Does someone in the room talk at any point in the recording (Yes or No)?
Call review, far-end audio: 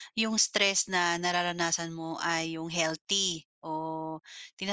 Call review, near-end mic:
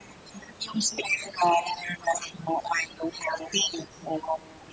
No